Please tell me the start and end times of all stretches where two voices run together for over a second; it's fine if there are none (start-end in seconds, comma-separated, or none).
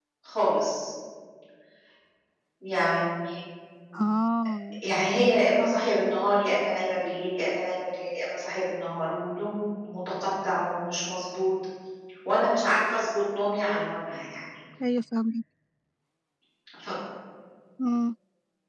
none